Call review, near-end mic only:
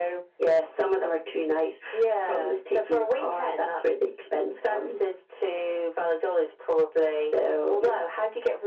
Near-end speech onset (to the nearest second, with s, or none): none